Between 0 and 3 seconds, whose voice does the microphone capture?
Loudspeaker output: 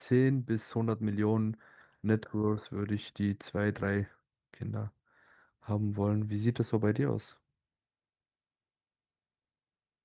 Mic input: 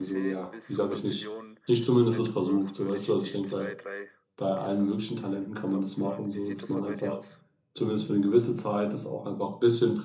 both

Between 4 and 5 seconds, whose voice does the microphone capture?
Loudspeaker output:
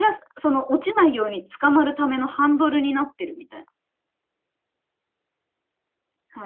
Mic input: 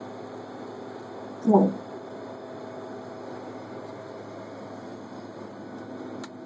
neither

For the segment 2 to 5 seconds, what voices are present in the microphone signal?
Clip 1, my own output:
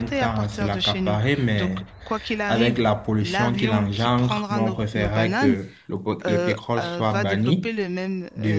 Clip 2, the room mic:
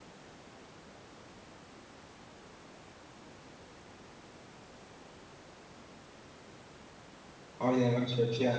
neither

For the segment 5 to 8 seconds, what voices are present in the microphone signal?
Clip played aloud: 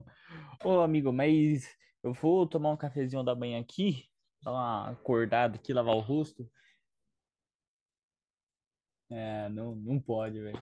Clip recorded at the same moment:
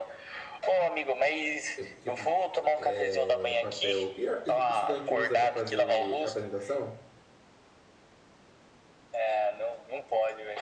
both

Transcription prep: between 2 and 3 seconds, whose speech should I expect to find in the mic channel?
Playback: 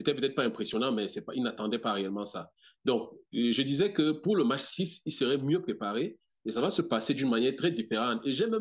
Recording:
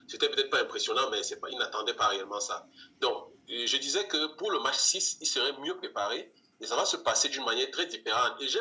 echo only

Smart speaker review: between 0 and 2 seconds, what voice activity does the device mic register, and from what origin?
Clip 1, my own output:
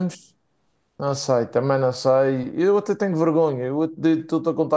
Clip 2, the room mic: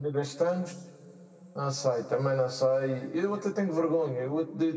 echo only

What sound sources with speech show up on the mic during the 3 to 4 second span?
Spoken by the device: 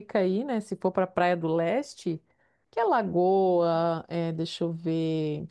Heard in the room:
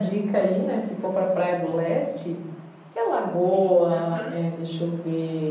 both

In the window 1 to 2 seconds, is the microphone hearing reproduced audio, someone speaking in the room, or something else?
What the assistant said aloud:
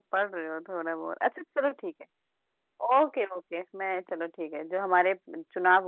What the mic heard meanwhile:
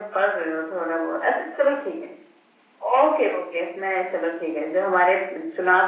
echo only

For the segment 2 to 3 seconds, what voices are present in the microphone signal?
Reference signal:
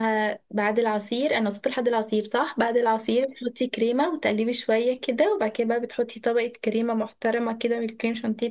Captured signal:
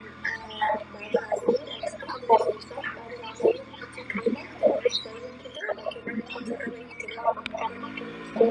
echo only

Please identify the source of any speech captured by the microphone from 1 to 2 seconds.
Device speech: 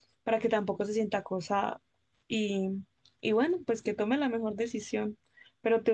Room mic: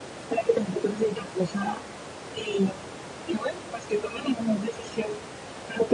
echo only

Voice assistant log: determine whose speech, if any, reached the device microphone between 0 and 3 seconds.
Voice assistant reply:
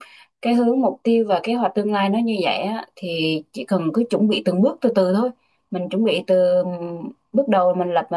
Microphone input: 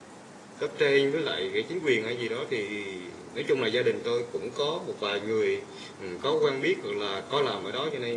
user only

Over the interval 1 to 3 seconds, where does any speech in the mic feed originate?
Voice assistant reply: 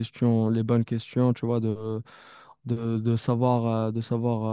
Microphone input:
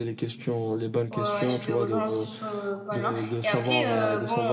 both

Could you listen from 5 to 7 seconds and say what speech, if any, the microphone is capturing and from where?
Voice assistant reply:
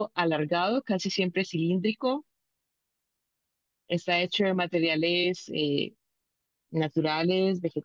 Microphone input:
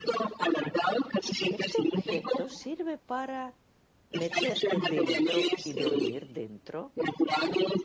both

